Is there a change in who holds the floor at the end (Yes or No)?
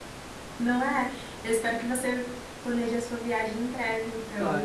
Yes